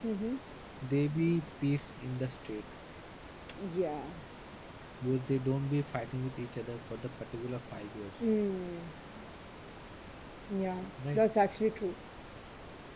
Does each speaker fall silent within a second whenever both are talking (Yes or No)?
Yes